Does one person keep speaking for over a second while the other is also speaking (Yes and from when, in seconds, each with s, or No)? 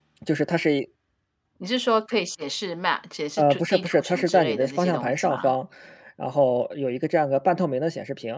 Yes, from 3.4 s